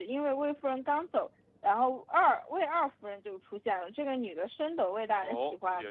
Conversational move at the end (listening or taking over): taking over